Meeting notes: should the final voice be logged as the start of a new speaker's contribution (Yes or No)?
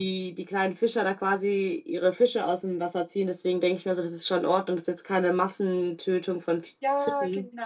Yes